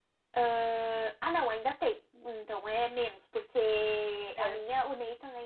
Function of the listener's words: listening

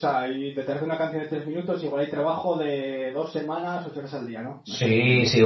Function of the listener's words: taking over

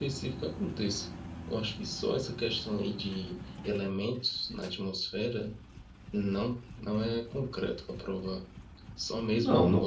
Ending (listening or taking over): taking over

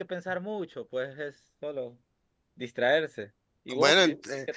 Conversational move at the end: taking over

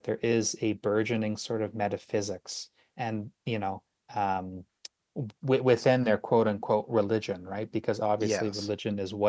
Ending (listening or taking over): listening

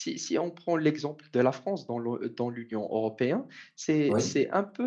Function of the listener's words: listening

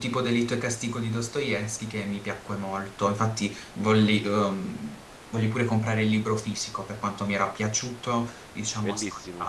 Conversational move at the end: taking over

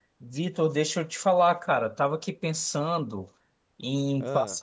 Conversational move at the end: listening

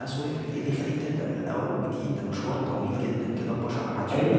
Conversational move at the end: taking over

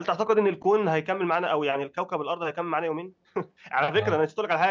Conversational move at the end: listening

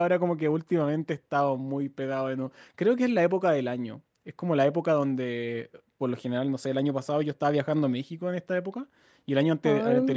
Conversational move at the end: listening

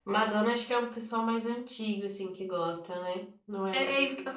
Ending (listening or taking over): taking over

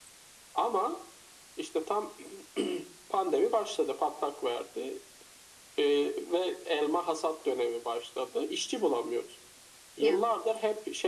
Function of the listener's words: listening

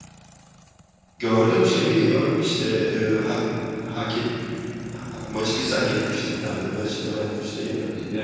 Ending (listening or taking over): taking over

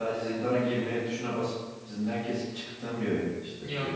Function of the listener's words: taking over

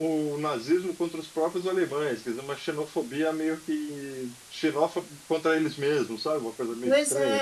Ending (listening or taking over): taking over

